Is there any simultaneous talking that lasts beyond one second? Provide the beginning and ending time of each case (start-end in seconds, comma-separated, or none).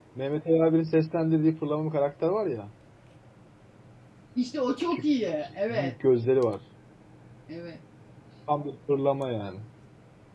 none